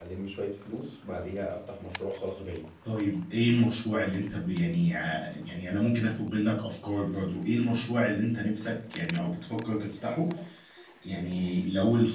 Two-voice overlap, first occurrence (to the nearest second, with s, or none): none